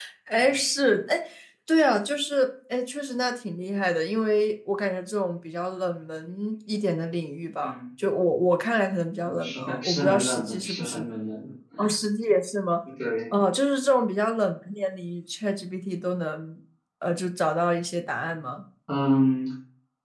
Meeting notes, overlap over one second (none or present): present